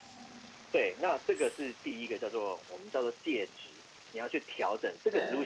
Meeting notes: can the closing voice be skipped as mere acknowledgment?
Yes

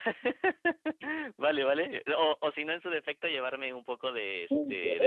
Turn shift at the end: Yes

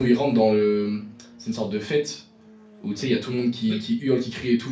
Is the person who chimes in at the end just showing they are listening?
Yes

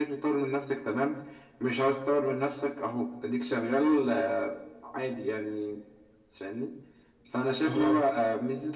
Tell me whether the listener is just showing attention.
Yes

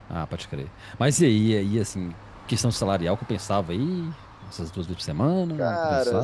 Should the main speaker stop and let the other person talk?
Yes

